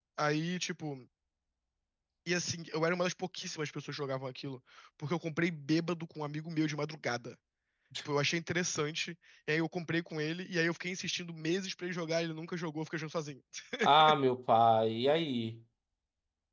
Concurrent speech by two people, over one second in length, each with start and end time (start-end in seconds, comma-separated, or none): none